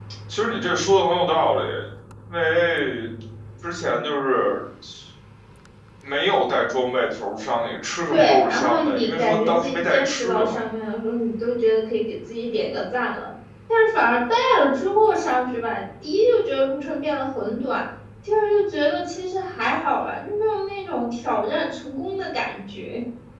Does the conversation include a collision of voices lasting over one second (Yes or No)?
Yes